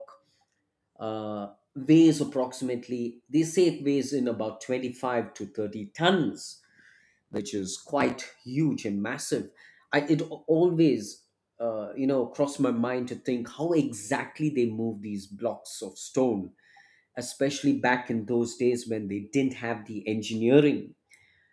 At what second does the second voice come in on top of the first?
none

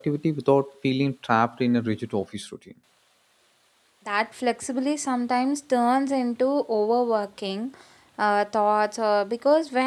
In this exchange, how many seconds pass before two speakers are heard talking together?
none

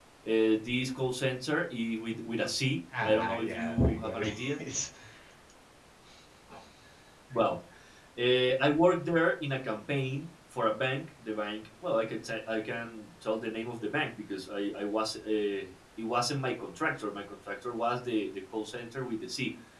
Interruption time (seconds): 2.9 s

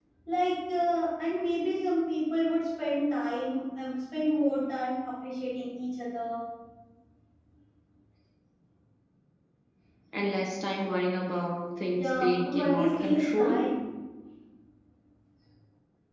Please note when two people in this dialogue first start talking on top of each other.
12.0 s

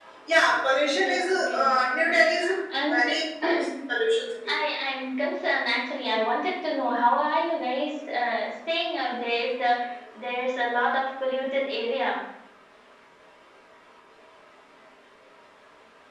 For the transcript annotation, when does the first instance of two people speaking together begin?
0.7 s

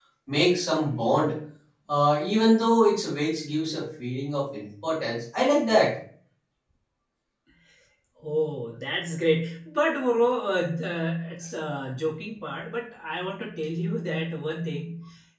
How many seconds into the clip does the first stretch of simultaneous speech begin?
none

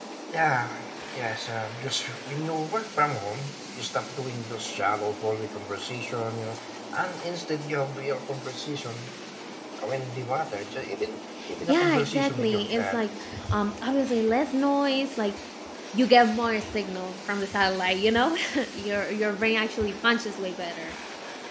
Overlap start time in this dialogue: 11.7 s

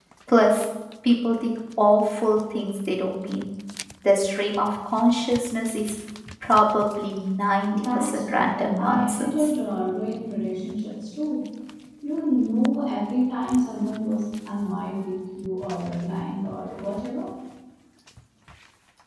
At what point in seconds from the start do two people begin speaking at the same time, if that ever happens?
7.7 s

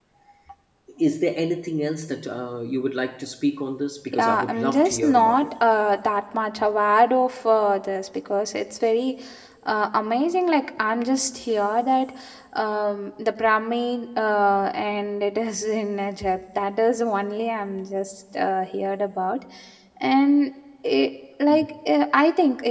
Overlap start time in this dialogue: 4.1 s

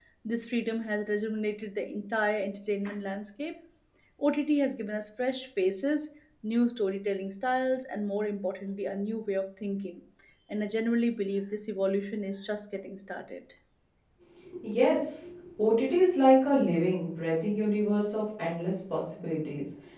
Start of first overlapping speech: none

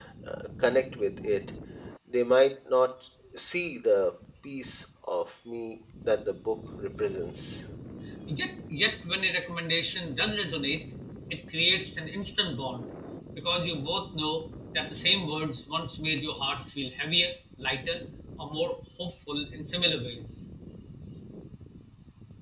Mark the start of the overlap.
none

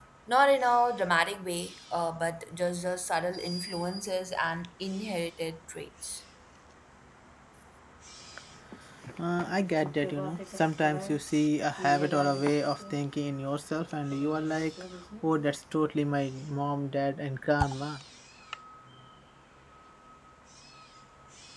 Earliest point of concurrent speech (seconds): none

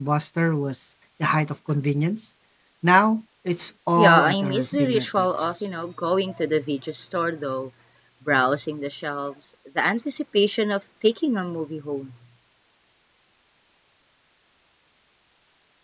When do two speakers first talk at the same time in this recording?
4.0 s

